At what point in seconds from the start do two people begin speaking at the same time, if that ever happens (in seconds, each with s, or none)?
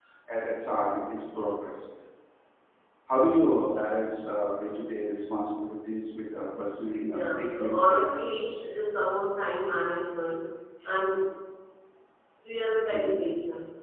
7.0 s